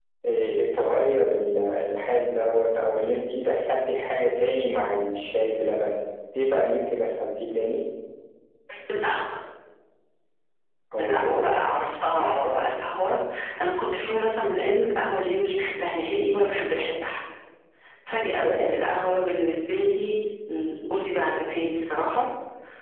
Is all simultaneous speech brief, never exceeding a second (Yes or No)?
Yes